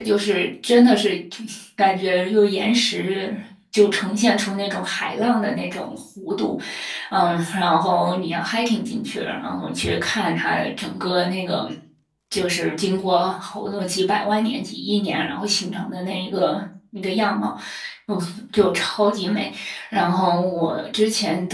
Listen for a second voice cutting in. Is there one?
No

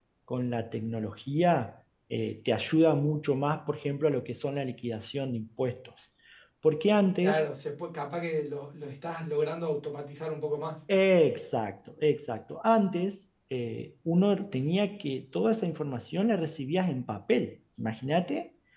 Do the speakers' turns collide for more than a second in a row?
No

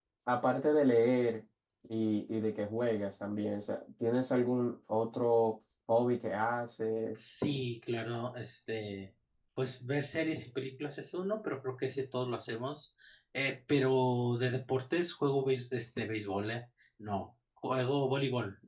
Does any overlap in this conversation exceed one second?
No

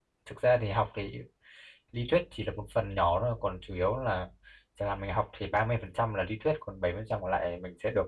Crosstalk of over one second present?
No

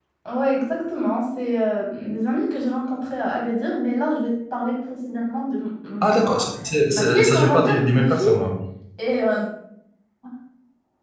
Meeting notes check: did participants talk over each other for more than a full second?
Yes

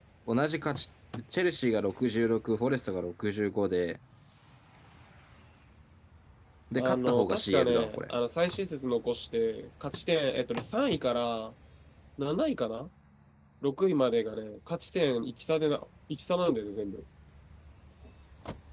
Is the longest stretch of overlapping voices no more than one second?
No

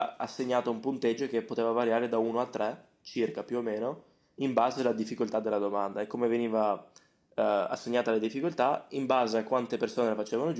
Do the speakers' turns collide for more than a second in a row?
No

